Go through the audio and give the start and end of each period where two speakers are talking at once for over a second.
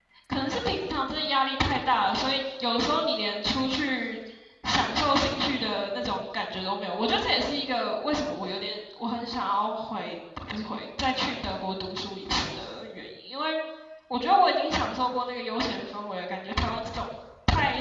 none

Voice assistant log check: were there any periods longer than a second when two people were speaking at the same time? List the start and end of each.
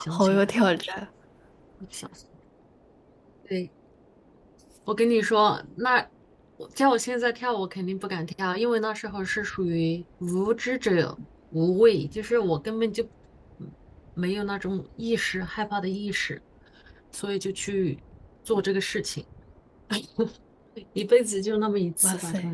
none

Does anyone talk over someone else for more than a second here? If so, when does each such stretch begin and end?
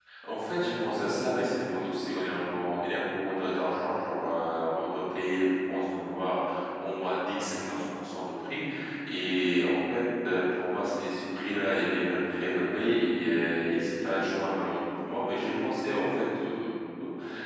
none

